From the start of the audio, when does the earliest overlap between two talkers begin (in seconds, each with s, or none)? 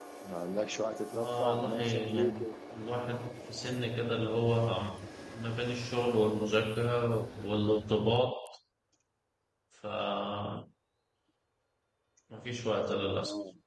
1.1 s